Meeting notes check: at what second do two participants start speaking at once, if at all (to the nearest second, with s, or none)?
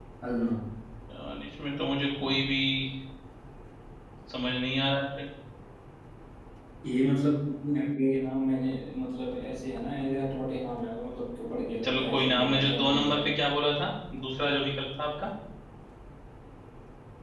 12 s